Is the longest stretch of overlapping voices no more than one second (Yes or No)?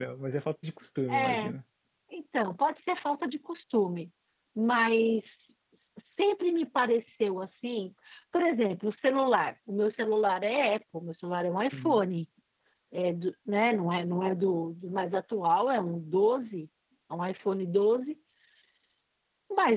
Yes